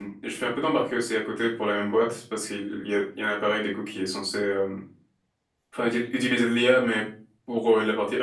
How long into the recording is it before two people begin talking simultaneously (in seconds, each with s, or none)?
none